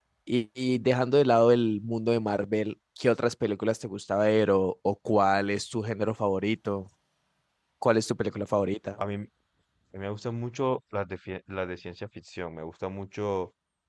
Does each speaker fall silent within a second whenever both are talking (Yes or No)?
Yes